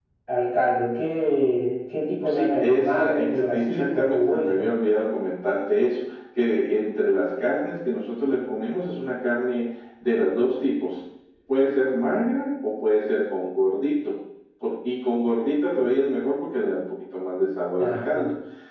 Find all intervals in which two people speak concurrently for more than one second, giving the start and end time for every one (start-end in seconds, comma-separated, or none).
2.2-4.7